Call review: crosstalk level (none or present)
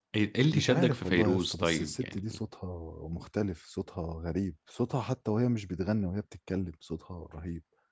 present